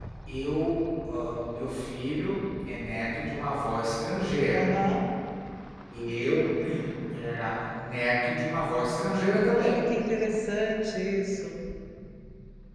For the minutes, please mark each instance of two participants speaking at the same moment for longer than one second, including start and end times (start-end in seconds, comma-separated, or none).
none